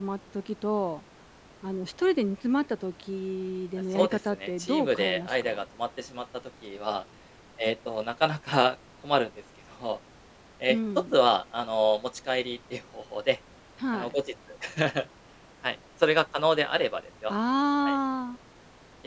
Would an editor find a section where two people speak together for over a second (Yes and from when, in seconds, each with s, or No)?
Yes, from 3.9 s